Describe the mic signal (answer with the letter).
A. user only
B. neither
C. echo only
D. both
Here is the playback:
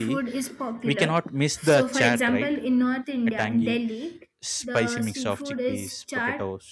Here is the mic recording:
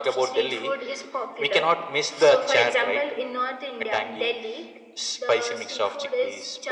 C